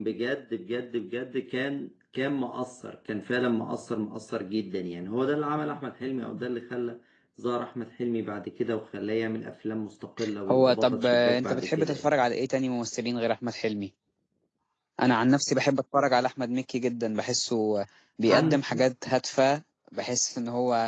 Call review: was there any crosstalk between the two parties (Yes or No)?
Yes